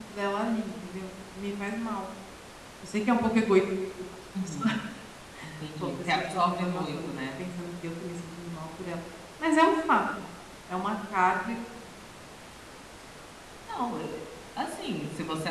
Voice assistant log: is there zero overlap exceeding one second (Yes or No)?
No